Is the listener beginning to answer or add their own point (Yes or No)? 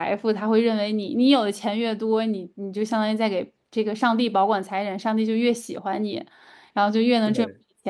No